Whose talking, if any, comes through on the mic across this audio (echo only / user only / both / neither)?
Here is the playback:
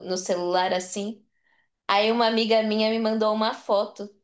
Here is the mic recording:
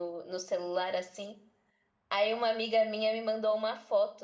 echo only